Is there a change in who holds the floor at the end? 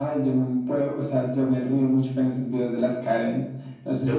No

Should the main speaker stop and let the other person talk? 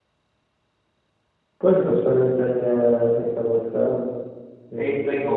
Yes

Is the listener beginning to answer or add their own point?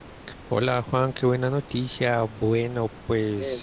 No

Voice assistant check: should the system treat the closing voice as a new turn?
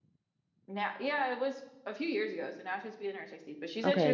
Yes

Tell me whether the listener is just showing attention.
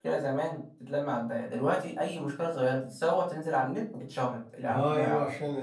No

